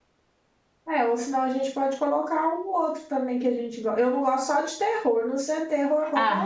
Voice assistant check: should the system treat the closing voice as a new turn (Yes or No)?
Yes